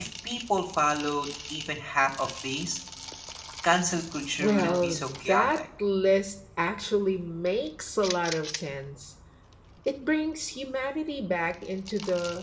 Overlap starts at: 4.4 s

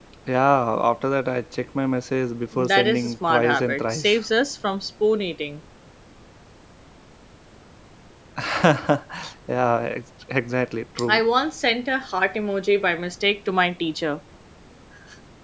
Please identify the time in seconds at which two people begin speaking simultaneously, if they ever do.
2.5 s

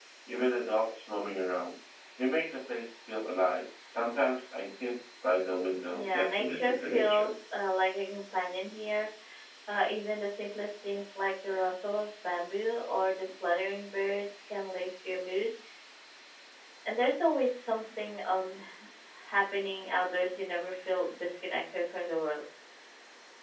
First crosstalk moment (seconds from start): 5.9 s

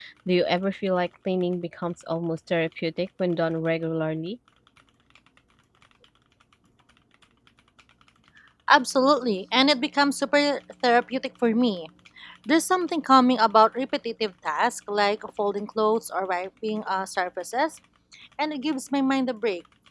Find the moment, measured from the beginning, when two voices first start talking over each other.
none

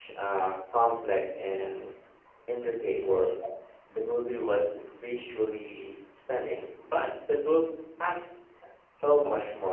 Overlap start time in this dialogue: none

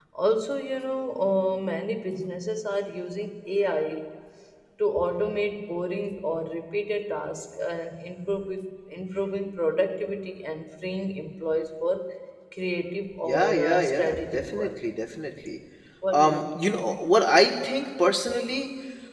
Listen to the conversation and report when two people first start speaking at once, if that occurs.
13.2 s

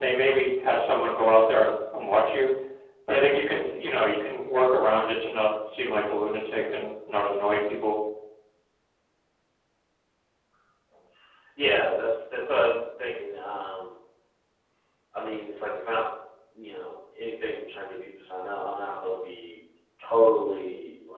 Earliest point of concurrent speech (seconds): none

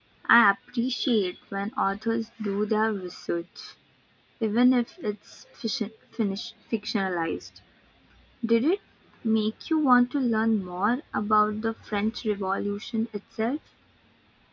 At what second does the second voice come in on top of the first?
none

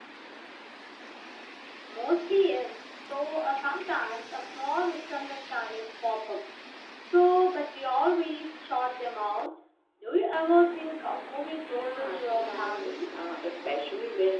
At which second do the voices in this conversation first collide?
11.7 s

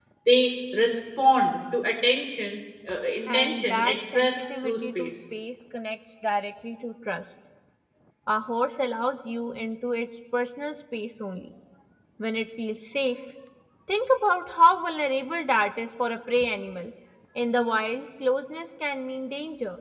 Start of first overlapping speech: 3.3 s

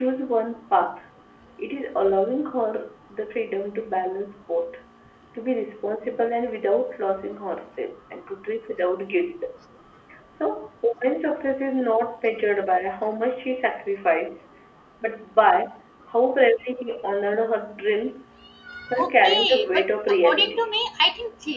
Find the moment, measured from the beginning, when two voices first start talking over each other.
19.0 s

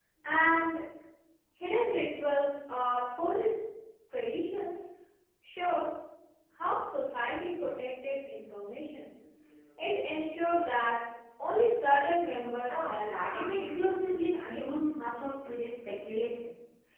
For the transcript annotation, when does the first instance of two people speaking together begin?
12.7 s

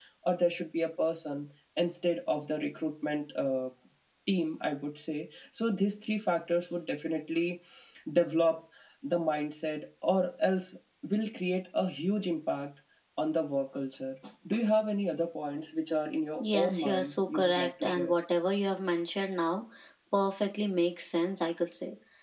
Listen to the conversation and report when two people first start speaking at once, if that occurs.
16.4 s

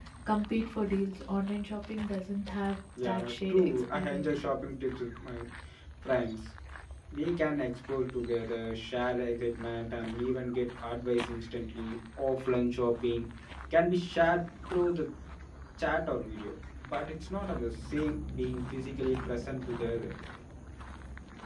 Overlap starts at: 3.0 s

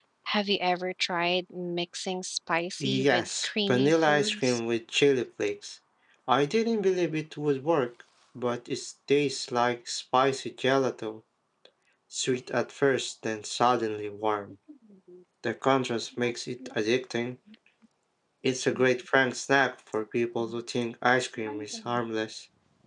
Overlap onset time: 2.8 s

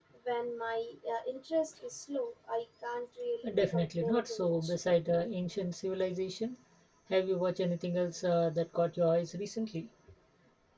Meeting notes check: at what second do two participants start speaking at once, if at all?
3.4 s

